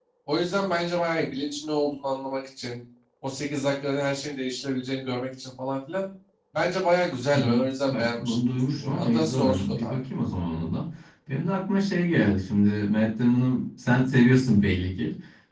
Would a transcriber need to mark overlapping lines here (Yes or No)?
Yes